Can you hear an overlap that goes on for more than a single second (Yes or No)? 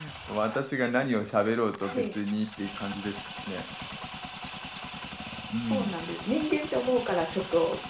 No